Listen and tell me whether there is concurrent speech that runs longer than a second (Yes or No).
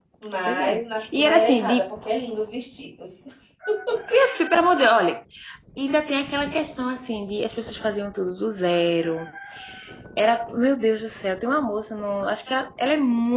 Yes